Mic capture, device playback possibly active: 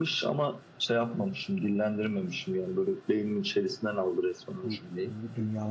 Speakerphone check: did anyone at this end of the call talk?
Yes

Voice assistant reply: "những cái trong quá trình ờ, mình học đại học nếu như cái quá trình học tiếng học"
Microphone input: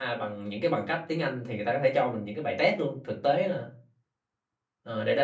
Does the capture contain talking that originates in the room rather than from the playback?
Yes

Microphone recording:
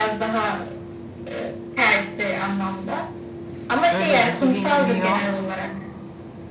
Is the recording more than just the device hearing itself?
Yes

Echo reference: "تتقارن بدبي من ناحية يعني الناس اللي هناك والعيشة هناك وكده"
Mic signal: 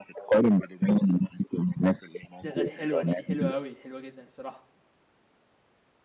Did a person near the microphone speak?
Yes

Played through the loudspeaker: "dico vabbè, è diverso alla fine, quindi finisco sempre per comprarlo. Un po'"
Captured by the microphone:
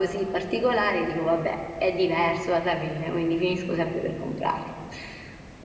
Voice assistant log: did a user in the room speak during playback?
No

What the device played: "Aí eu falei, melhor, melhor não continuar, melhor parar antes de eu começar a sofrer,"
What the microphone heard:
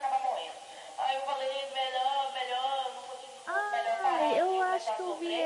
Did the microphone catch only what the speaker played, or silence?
No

